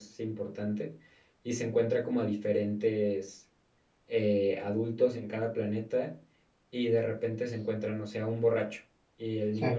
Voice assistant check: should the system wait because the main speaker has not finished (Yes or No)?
Yes